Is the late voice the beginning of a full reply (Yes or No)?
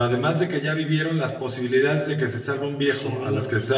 No